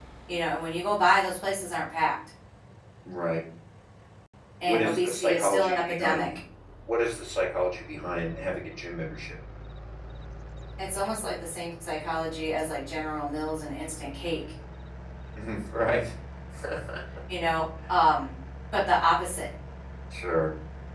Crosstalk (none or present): present